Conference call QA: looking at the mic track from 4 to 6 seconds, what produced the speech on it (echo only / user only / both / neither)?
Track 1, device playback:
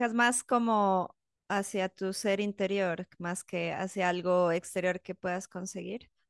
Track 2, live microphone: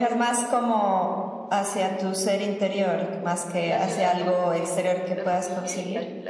both